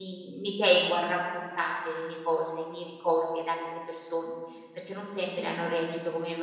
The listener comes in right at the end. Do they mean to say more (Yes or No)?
No